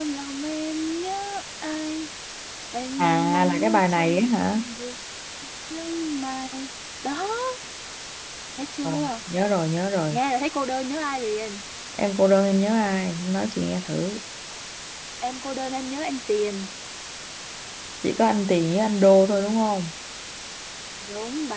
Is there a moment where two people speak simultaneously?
Yes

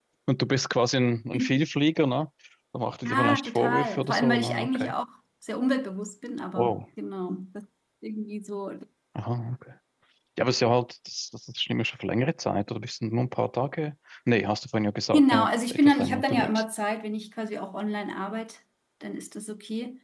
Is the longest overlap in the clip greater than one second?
Yes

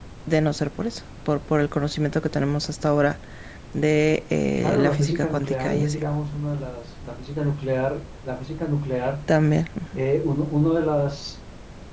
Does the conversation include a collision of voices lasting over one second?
Yes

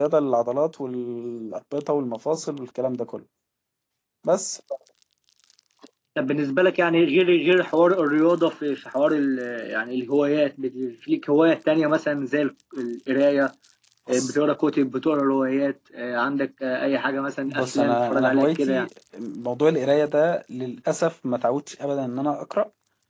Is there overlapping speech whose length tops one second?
Yes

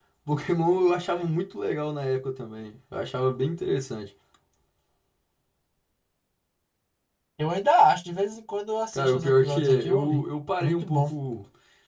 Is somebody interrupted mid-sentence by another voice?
Yes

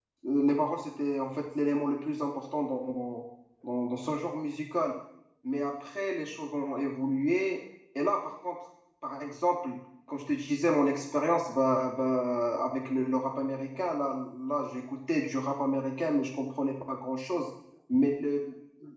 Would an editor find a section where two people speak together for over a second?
No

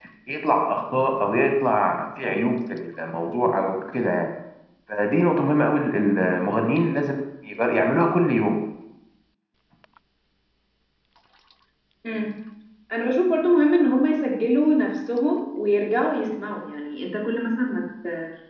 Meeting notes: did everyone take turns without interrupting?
Yes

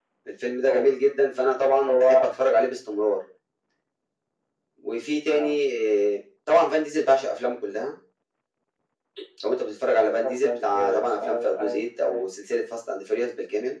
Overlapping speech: Yes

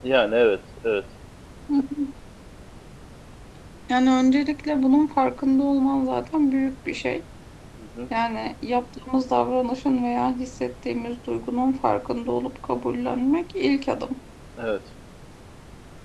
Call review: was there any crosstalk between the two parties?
No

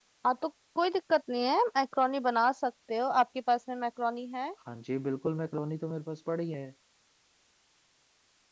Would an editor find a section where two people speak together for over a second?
No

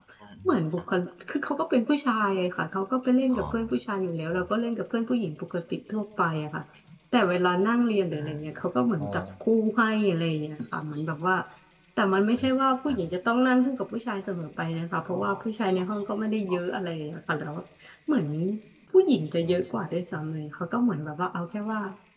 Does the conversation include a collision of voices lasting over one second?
No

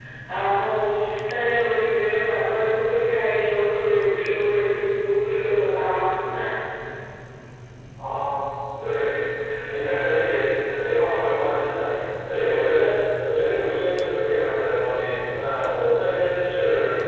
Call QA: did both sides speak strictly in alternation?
Yes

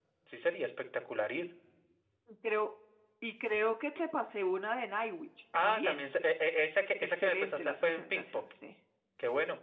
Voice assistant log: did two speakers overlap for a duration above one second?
Yes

